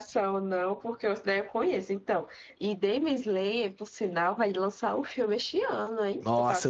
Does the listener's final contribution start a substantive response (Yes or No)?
Yes